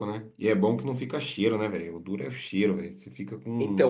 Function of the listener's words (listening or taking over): taking over